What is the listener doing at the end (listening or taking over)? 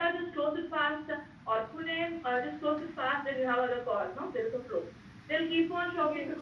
listening